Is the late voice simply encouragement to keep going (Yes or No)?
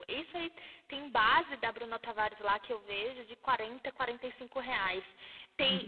Yes